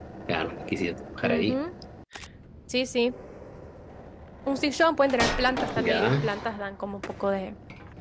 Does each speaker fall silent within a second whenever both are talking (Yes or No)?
Yes